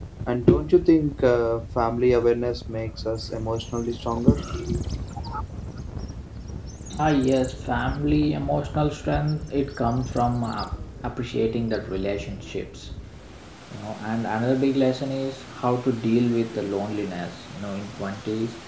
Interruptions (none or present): none